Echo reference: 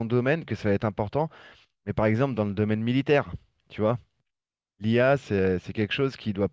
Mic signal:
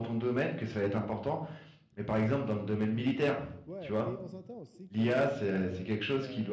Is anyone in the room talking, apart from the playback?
Yes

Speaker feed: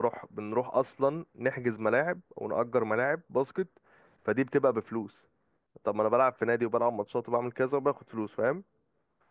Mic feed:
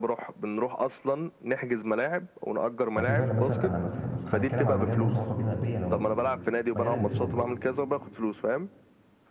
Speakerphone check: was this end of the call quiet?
No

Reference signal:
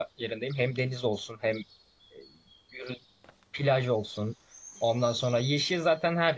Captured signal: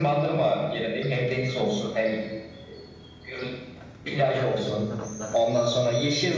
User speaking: Yes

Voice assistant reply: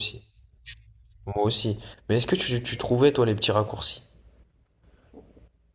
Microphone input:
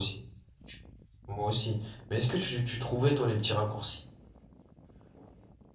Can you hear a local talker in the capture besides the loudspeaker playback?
No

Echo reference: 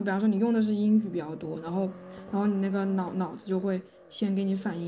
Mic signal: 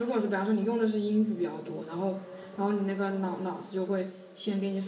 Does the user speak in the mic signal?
No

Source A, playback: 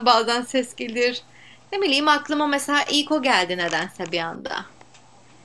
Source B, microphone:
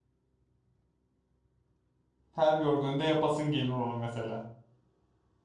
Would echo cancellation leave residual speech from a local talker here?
Yes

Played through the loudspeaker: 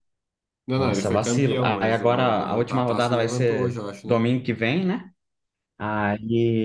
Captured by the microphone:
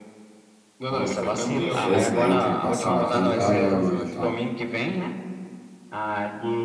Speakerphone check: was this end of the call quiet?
No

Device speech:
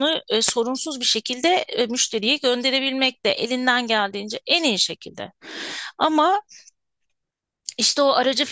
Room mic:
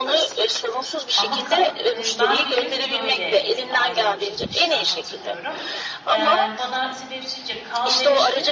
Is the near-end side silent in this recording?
No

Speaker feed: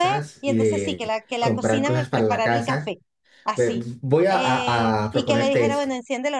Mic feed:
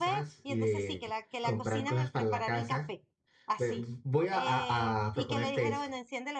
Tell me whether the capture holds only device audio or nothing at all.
Yes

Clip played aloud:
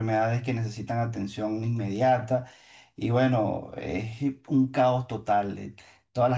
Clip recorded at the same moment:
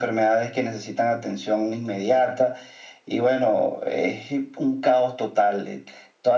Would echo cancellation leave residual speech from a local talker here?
No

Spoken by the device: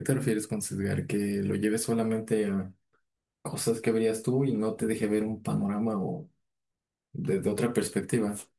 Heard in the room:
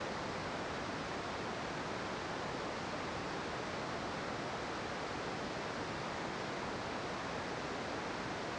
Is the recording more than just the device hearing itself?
No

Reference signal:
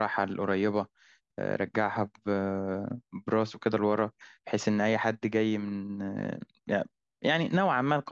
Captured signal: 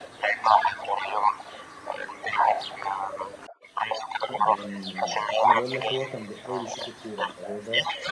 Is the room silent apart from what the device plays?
No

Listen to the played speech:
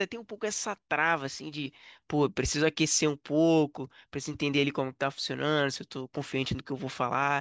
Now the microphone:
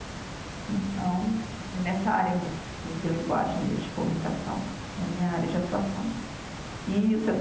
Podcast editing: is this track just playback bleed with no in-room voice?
No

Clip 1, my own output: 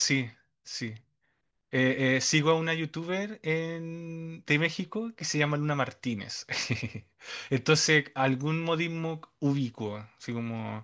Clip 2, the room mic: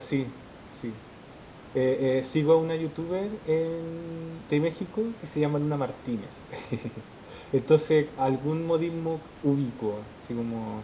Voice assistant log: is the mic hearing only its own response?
Yes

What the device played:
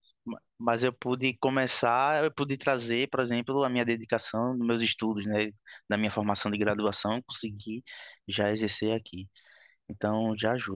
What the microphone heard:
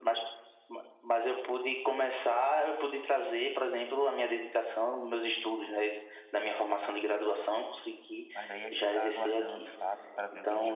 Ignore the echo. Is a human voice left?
Yes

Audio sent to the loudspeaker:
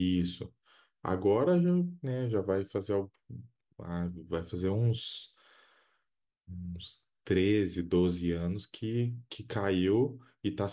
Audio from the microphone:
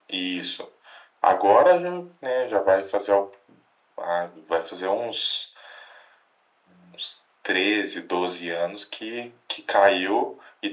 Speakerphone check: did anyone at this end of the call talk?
No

